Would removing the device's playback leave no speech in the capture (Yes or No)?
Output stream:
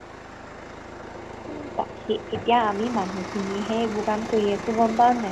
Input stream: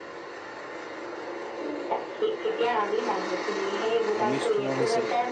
No